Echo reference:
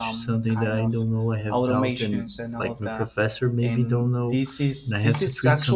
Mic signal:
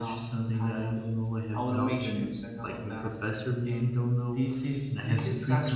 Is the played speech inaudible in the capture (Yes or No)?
No